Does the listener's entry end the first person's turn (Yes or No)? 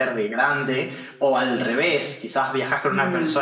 No